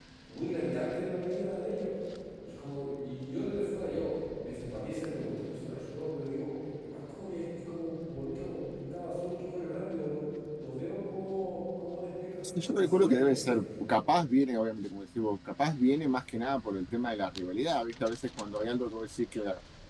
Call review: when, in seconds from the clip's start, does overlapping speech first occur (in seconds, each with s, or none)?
12.4 s